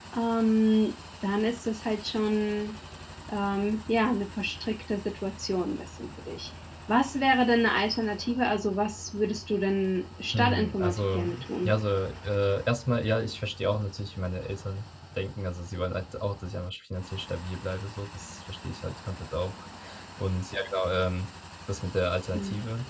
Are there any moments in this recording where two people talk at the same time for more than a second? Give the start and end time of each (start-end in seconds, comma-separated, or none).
10.3-11.7